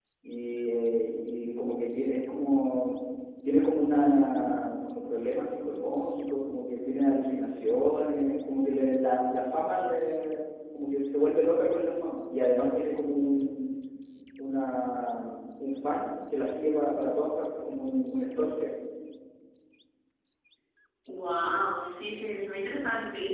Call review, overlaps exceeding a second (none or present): none